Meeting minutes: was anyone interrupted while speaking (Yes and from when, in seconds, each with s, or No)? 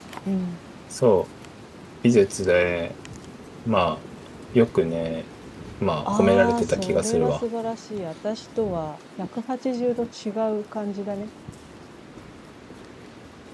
Yes, from 6.0 s